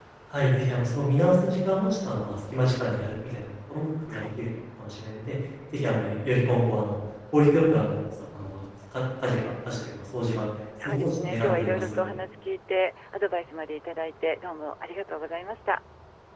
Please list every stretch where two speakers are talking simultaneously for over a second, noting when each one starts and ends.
10.8-12.1

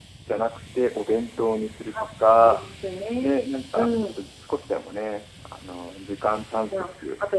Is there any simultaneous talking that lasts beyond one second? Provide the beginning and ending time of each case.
none

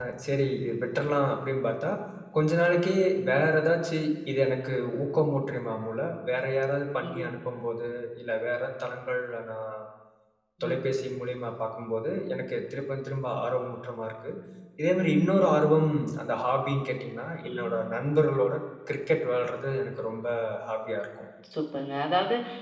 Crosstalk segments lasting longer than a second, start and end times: none

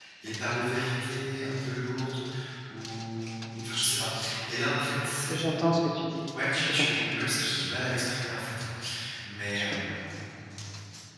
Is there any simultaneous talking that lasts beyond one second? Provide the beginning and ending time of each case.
none

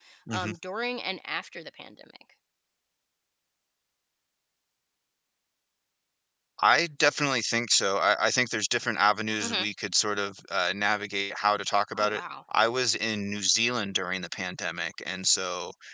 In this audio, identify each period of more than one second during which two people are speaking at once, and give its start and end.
none

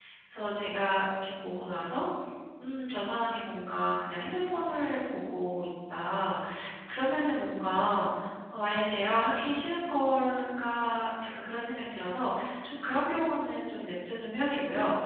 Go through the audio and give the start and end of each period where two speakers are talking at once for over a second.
none

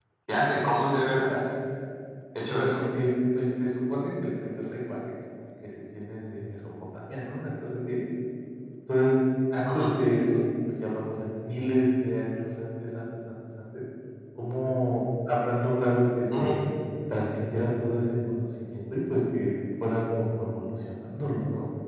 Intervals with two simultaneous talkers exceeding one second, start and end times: none

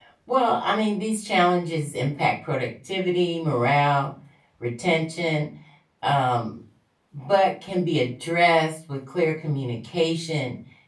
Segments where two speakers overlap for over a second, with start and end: none

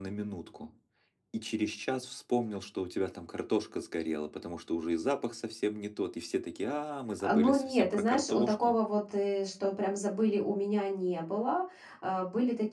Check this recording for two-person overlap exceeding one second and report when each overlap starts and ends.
7.2-8.8

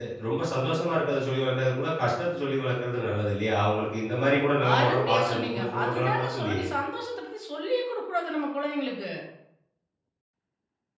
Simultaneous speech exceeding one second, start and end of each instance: 4.8-6.7

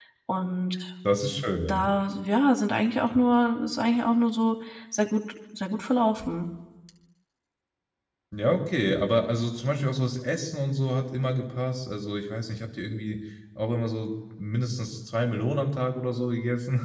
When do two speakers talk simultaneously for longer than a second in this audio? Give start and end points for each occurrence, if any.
none

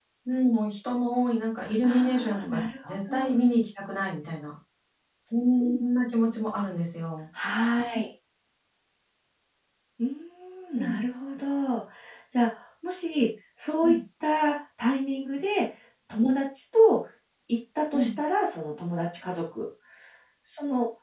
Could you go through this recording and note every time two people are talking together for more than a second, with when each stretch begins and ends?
1.8-3.4

